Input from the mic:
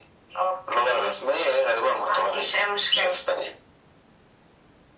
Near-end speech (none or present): none